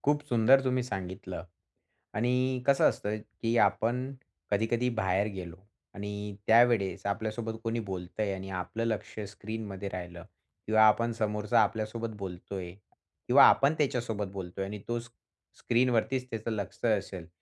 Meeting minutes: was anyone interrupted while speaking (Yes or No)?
No